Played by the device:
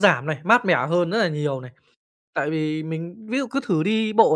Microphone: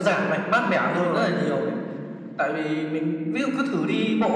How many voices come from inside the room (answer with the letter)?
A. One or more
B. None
A